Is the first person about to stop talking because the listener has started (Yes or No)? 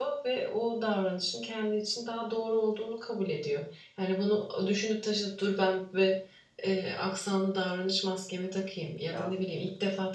No